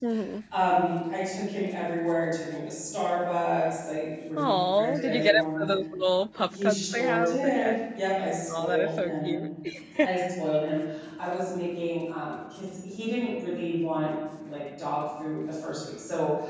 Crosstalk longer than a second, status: present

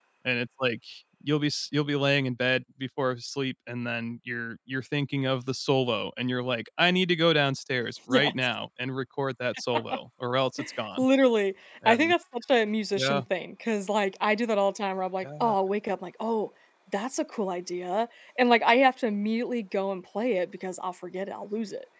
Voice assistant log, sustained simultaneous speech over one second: none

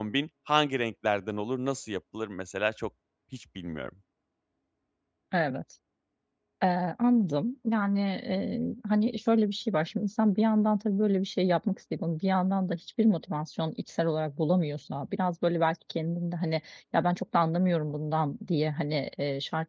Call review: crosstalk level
none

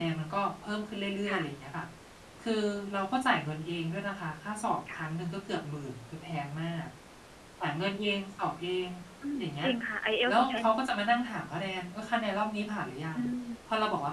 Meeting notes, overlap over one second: none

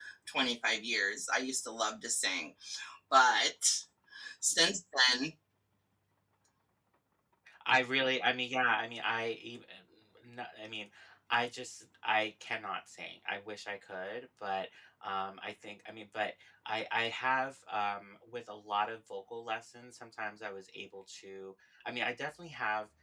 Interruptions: none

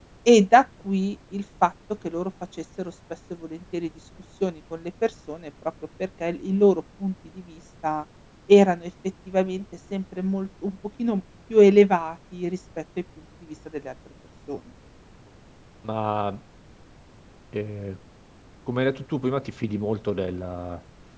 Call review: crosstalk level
none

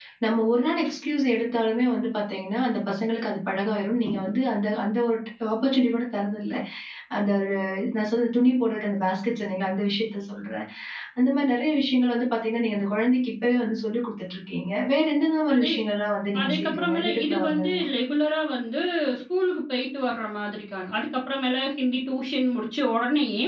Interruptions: present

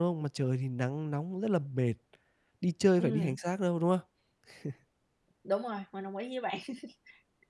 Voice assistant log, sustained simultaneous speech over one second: none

